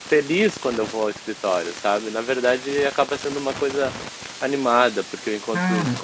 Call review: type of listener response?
listening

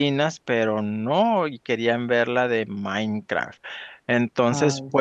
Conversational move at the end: listening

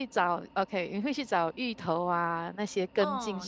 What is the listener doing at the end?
taking over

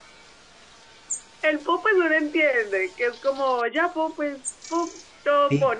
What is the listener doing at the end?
taking over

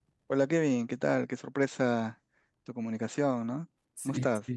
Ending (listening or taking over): taking over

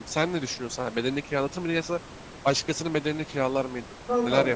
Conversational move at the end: taking over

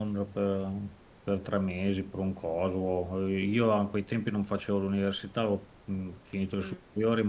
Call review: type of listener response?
listening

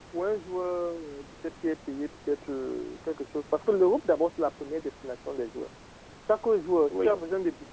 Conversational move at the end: listening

